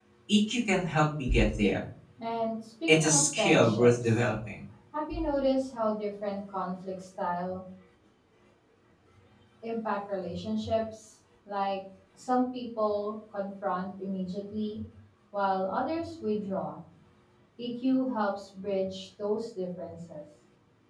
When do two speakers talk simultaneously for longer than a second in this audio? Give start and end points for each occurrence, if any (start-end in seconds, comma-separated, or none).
2.9-4.2